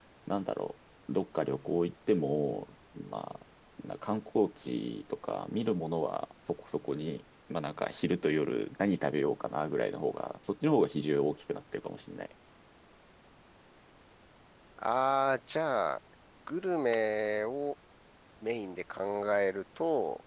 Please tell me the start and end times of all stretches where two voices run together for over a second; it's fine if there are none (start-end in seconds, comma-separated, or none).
none